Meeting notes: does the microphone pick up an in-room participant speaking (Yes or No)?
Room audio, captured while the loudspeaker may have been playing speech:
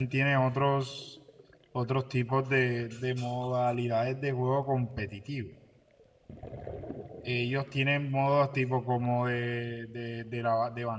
Yes